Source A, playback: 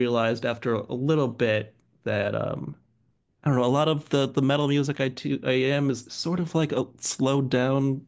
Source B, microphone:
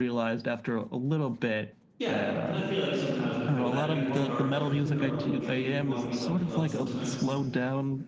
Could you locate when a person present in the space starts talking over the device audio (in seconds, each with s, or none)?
2.0 s